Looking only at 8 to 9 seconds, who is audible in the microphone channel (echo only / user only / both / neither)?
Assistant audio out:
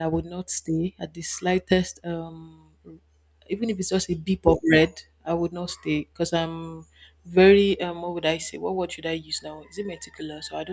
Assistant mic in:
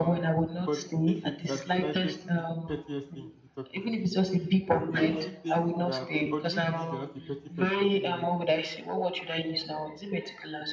both